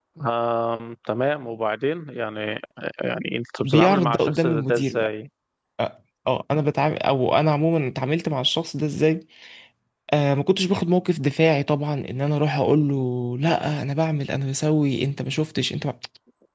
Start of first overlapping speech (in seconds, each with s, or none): 3.6 s